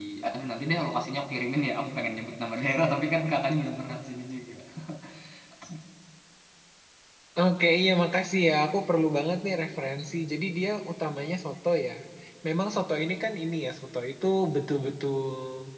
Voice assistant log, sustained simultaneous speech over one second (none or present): none